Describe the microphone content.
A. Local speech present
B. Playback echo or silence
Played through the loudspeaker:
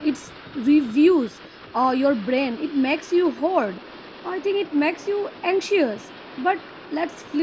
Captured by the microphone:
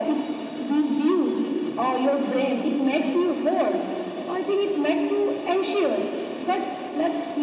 B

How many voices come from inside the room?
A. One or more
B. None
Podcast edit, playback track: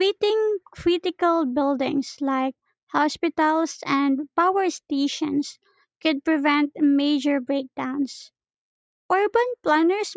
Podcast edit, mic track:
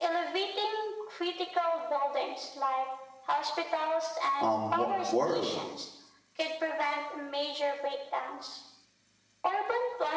A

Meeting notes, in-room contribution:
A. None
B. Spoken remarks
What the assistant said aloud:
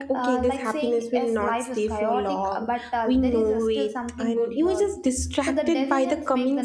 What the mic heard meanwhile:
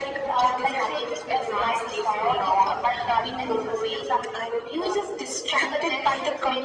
A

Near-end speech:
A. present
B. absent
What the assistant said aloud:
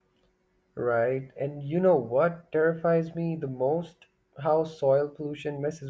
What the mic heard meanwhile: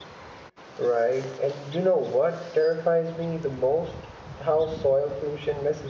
B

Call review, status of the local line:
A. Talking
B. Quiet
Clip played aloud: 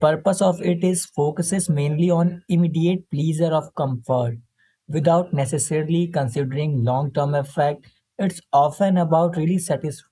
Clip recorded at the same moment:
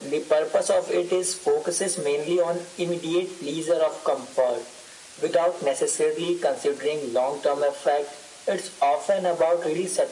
B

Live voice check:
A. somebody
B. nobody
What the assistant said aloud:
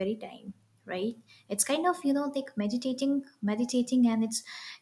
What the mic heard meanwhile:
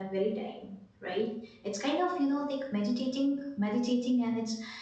B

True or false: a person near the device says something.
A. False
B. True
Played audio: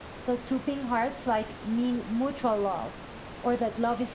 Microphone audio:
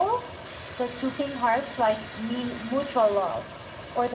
A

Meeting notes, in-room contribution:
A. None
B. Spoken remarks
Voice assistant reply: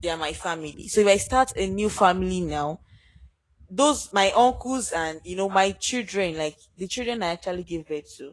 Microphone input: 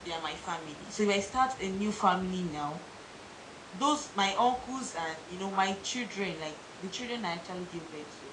A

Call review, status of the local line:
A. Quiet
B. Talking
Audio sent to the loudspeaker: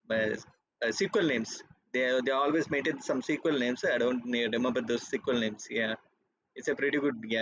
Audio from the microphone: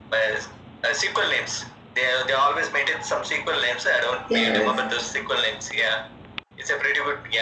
B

